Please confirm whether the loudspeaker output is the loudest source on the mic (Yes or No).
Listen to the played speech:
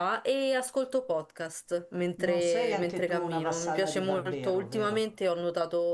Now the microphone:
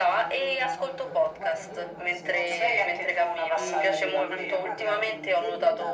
Yes